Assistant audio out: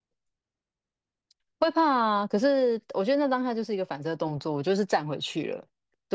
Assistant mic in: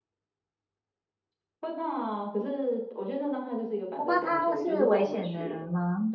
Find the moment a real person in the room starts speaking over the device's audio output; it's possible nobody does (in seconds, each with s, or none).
4.0 s